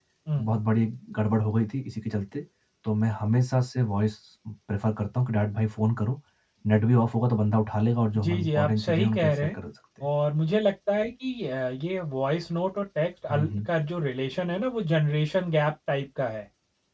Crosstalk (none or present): present